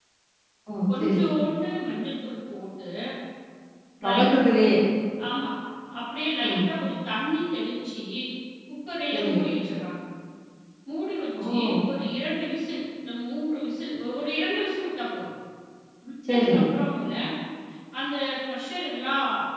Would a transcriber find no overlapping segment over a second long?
Yes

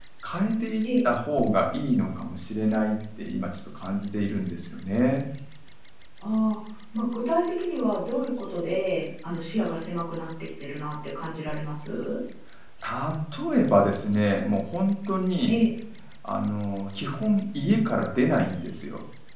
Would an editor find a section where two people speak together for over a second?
No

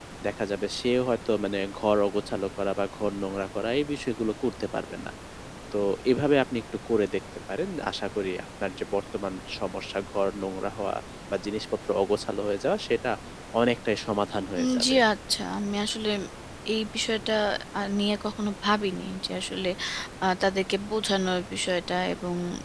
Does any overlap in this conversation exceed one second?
No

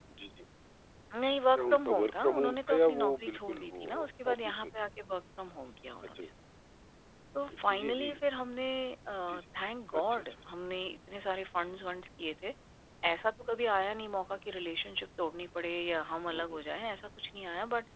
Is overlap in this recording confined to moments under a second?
No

